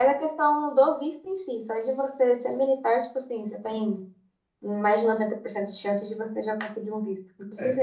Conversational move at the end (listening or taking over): taking over